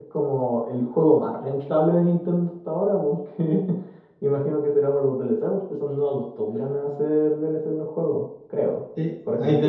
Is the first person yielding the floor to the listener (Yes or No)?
Yes